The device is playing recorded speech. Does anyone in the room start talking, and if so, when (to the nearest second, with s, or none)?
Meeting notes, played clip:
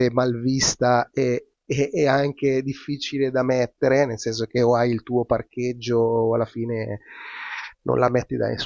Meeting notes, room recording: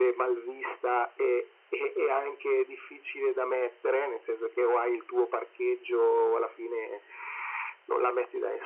none